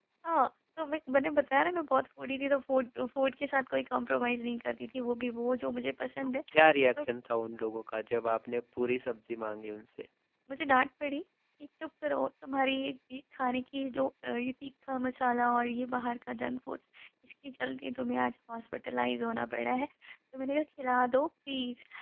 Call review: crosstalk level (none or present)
none